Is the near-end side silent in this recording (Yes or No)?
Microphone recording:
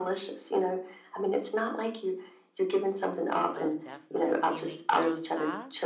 No